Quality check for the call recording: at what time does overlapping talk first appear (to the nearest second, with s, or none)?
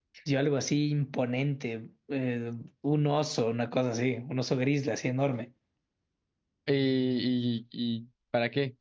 none